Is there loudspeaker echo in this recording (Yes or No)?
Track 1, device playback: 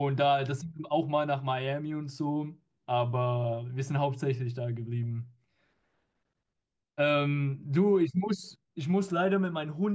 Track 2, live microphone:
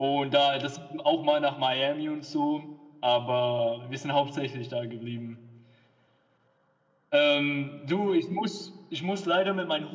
Yes